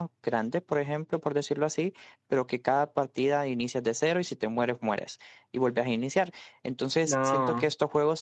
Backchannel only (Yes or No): Yes